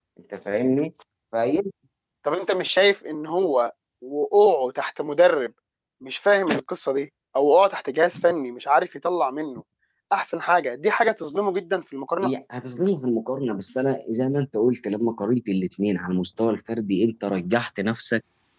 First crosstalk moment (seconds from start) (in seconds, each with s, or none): none